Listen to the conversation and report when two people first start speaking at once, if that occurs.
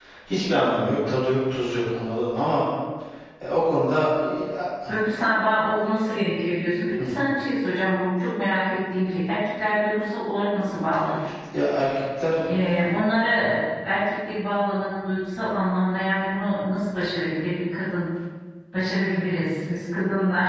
none

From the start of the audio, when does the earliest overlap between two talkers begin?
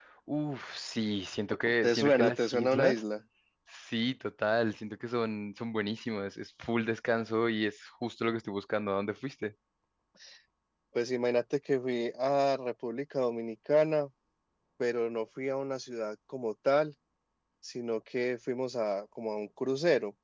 2 s

